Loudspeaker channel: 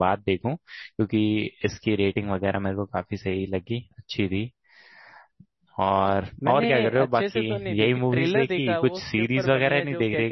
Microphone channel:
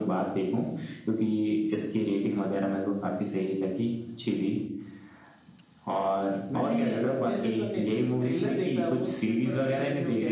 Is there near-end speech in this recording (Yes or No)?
No